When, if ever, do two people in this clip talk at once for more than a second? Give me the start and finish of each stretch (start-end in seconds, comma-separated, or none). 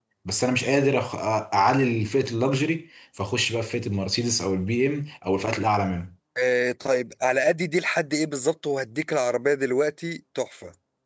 none